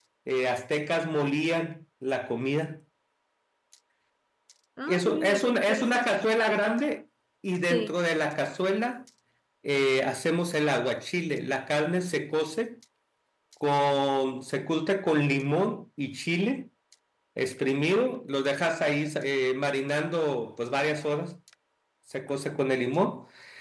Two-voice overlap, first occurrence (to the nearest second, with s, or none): 5 s